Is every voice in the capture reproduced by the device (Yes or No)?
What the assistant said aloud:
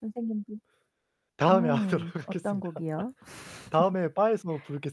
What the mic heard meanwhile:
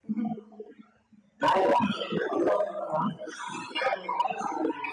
Yes